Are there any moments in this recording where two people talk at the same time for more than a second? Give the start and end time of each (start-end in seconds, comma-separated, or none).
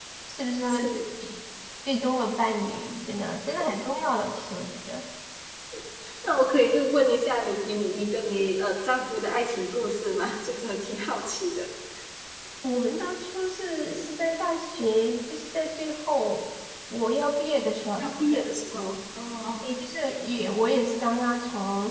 none